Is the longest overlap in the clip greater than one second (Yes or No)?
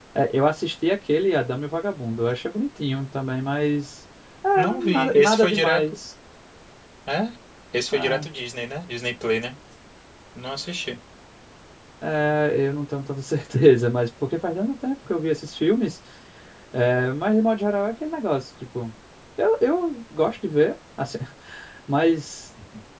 Yes